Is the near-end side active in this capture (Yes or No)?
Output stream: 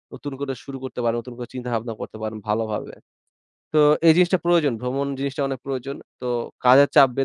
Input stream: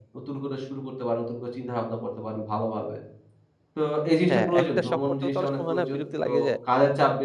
Yes